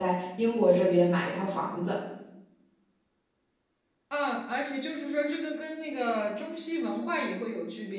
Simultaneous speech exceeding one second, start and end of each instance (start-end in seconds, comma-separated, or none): none